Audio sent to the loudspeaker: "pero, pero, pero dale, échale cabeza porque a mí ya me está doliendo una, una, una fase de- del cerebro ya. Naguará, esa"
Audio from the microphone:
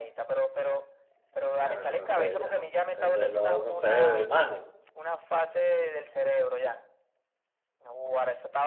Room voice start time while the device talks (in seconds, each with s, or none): 1.6 s